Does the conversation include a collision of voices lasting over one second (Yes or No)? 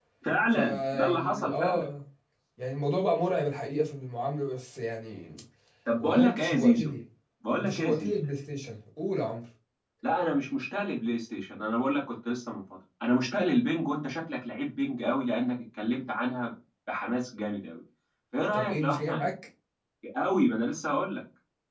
Yes